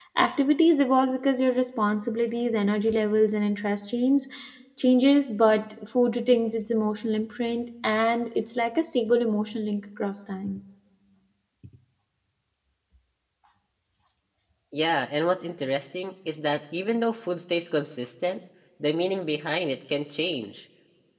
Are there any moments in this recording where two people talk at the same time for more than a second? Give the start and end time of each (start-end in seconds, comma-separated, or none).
none